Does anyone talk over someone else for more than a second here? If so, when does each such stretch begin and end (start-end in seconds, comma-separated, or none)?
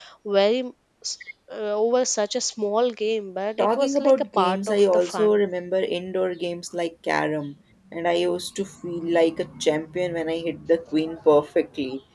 3.6-5.4